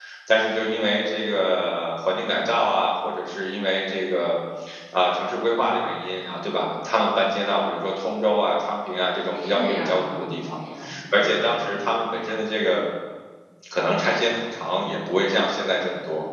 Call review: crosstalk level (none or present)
present